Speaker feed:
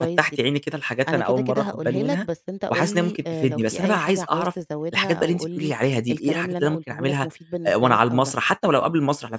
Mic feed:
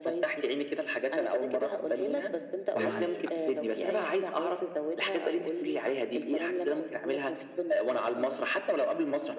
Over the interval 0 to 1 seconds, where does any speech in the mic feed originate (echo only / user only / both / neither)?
echo only